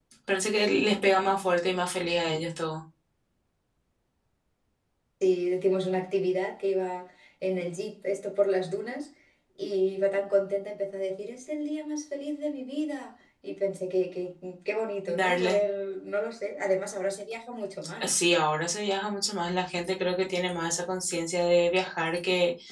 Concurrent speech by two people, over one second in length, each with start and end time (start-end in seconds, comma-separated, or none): none